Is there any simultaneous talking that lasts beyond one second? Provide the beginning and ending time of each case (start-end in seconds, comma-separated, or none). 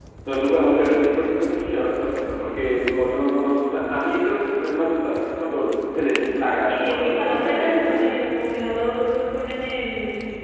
6.6-8.0